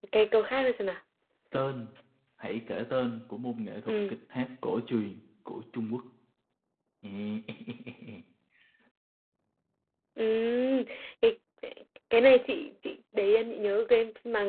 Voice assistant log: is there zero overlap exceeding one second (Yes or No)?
Yes